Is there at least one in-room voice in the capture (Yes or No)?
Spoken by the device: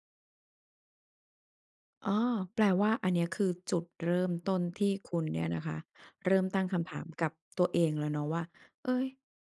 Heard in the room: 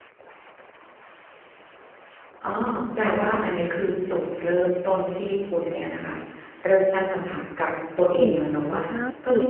Yes